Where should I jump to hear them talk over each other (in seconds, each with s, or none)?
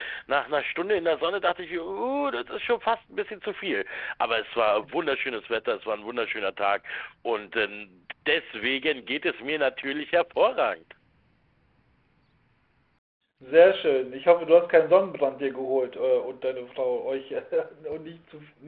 none